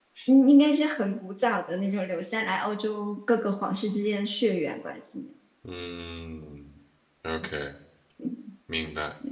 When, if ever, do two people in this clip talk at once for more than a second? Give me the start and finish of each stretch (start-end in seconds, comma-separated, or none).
none